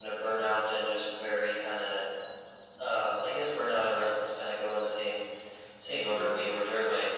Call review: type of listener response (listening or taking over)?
listening